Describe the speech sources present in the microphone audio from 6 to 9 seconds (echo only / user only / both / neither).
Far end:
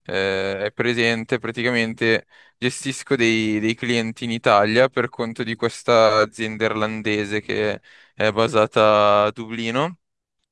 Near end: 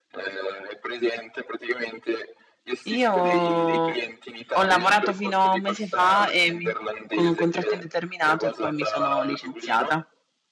both